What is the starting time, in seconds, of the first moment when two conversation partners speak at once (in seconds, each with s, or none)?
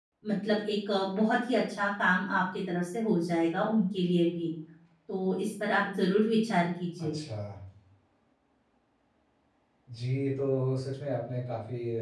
none